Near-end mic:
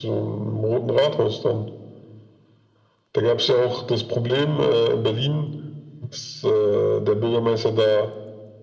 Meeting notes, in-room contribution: none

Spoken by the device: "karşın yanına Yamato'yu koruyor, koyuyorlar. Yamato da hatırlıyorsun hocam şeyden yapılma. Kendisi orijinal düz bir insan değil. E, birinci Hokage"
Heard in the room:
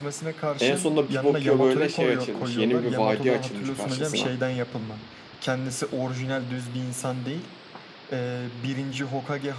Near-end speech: present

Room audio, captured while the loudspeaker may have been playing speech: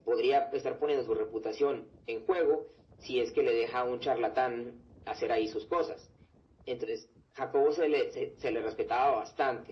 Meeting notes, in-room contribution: none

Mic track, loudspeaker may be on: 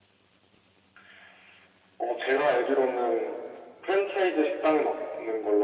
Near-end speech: none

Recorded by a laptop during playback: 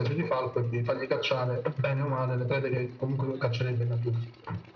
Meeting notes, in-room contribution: none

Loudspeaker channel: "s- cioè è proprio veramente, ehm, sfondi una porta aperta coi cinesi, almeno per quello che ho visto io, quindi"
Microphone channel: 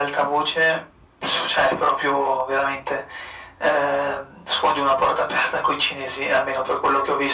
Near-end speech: none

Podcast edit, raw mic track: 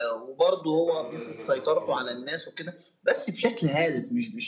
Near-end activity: present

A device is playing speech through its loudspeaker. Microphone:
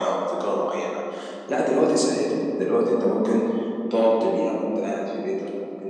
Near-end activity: none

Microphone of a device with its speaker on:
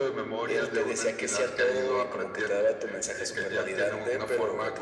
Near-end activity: none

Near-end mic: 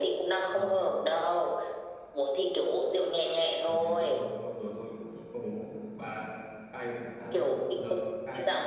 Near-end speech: present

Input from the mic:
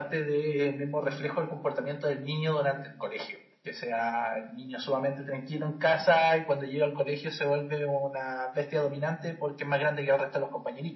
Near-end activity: none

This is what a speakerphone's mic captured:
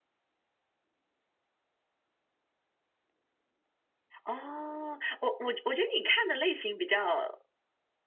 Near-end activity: present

